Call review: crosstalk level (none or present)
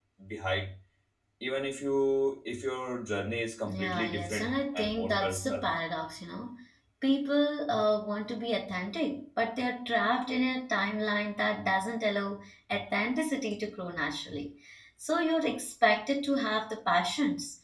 present